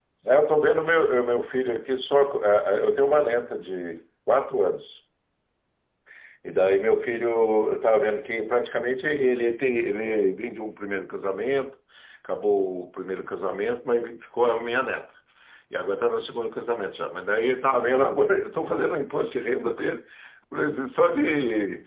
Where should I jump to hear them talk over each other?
none

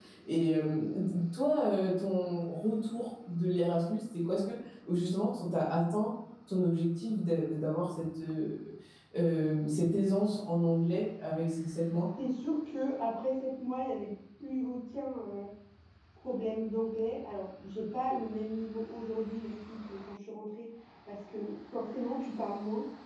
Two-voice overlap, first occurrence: none

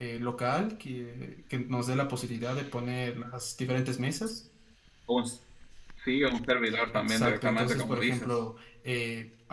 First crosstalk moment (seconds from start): 6.9 s

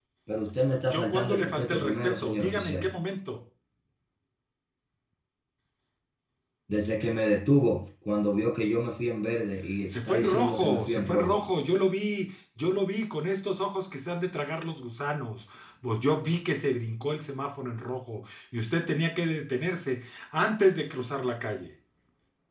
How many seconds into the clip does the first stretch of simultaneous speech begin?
0.8 s

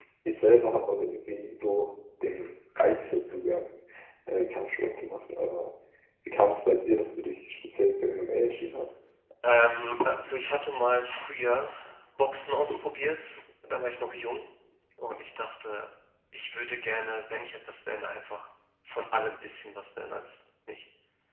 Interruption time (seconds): none

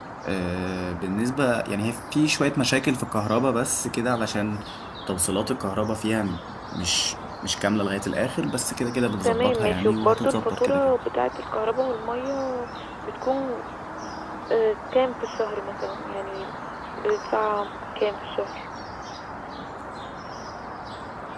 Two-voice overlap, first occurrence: 9.2 s

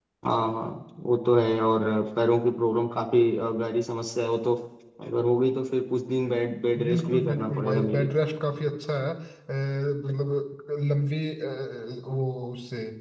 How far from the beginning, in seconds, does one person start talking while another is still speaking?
6.7 s

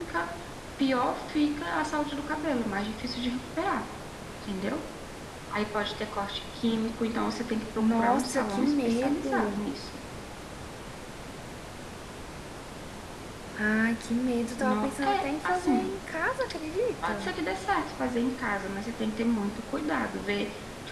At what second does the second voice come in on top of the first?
7.8 s

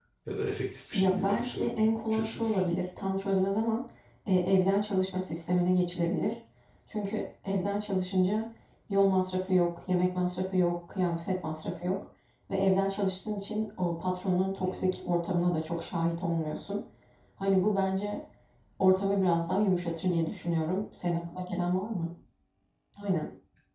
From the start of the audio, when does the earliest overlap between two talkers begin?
0.9 s

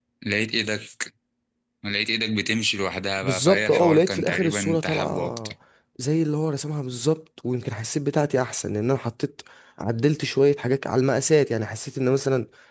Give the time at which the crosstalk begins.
3.2 s

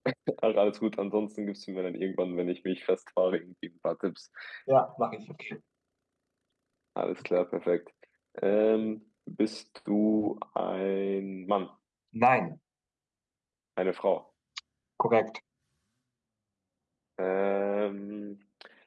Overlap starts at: none

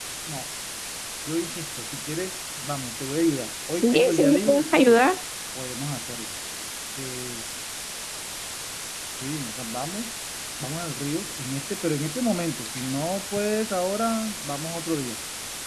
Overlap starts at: 3.8 s

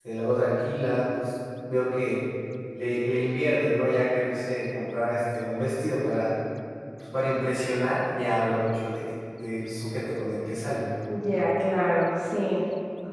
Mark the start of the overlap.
none

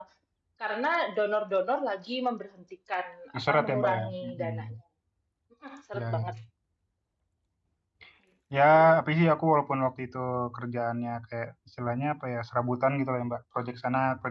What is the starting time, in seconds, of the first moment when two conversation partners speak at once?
3.3 s

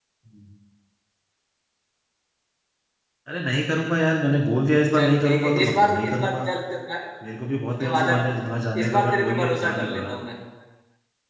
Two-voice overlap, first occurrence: 4.9 s

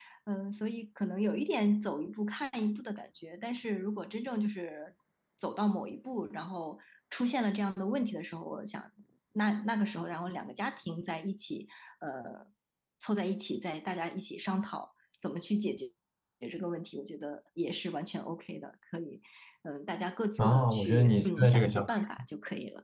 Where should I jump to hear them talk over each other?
20.4 s

